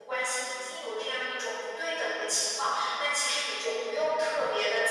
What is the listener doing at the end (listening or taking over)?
listening